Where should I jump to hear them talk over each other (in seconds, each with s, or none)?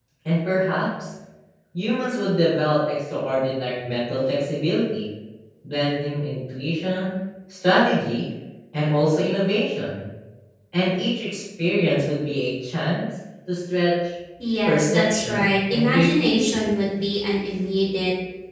14.7 s